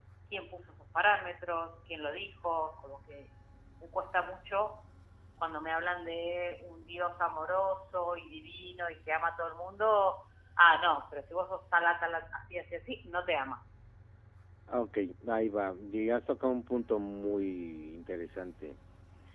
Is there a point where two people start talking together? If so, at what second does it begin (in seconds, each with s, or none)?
none